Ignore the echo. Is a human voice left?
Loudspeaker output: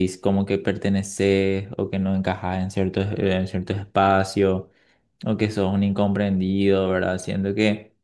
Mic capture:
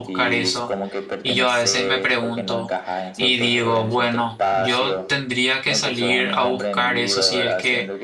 Yes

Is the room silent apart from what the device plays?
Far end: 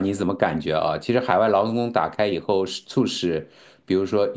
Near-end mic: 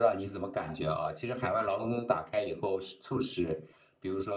Yes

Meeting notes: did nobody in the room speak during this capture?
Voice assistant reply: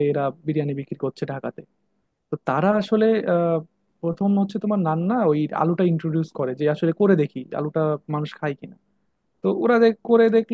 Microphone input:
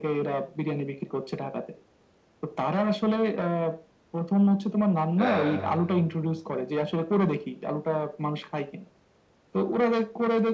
No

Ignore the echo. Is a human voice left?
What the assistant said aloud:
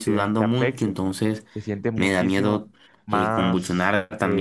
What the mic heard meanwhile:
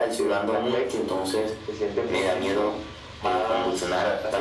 No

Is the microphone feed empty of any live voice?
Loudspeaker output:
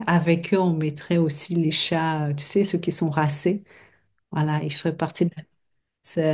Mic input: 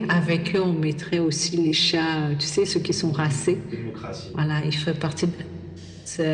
No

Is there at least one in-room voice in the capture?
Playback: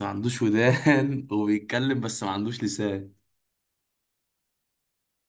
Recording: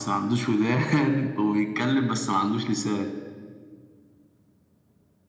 No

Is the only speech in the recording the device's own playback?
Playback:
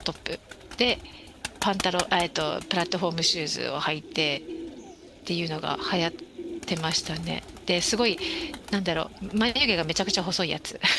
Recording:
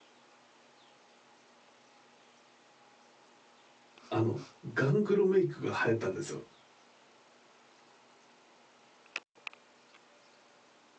No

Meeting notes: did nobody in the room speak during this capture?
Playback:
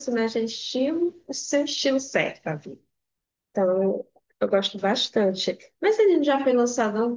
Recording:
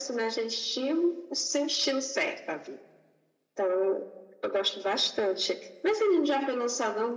Yes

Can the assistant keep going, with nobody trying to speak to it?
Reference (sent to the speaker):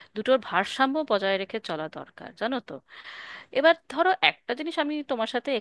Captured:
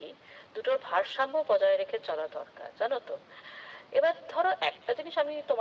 Yes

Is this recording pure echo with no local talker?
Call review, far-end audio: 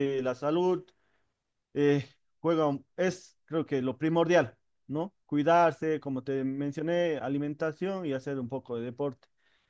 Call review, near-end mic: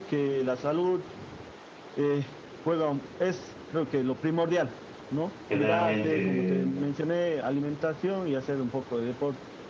No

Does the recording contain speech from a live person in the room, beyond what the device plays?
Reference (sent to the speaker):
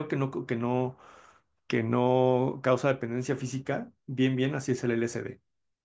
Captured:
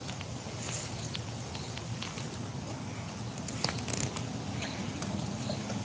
No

